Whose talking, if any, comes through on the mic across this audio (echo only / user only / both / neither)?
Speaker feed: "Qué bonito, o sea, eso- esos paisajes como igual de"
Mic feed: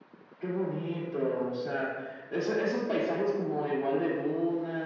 echo only